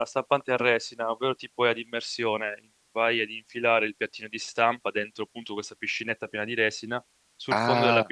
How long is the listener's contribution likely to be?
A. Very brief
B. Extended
A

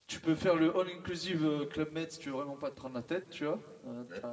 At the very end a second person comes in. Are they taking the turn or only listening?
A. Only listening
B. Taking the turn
A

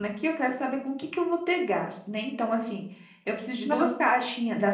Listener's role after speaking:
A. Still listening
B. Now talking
A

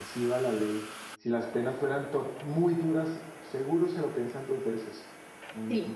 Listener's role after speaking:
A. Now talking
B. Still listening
A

